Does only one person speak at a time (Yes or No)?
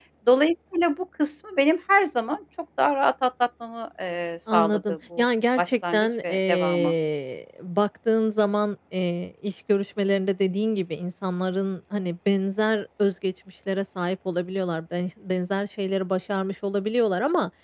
No